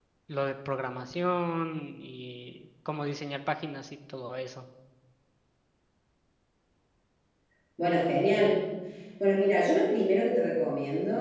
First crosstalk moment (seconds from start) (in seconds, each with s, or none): none